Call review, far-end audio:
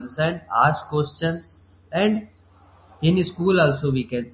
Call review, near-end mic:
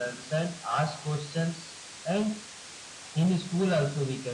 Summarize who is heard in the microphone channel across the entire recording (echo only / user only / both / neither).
echo only